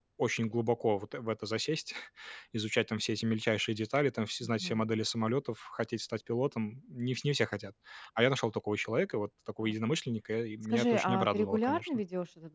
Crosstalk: present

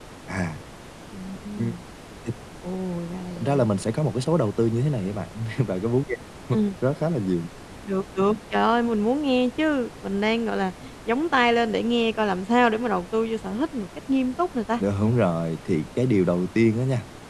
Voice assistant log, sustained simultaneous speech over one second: none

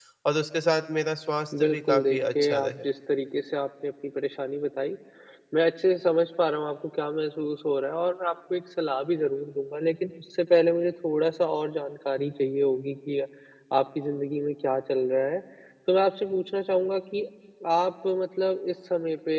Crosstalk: present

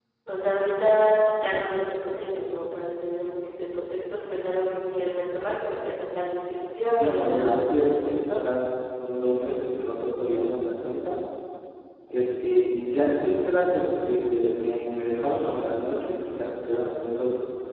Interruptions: present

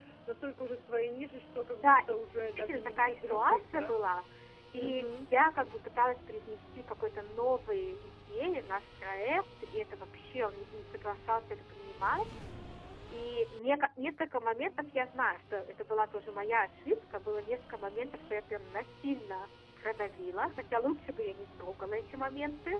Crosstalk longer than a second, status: present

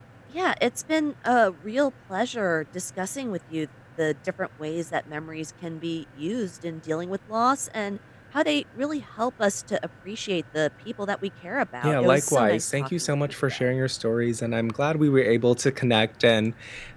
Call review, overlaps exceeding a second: present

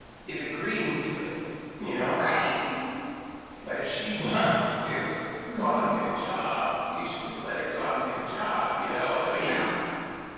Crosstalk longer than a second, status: none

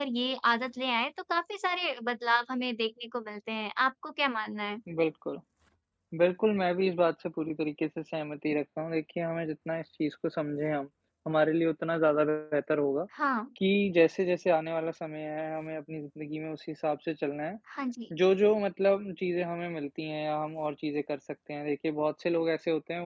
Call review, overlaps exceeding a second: none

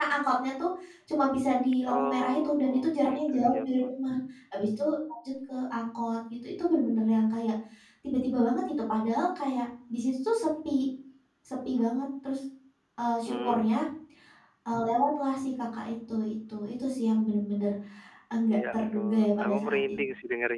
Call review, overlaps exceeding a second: present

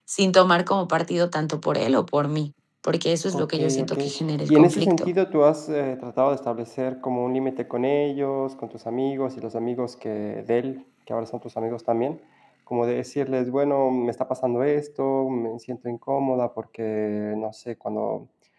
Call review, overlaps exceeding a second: present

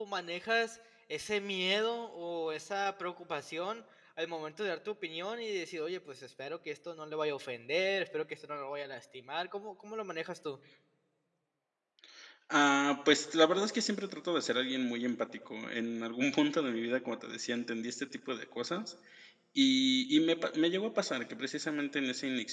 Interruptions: none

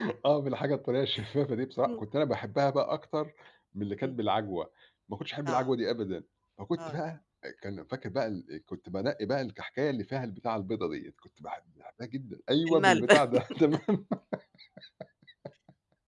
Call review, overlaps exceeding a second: none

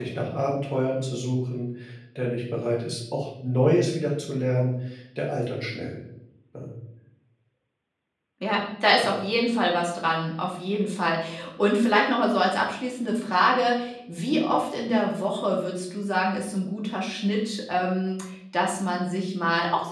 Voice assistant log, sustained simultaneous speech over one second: none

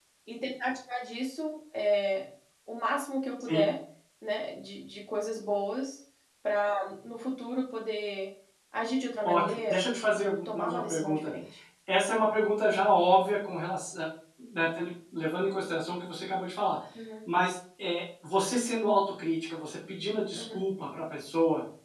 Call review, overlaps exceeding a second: present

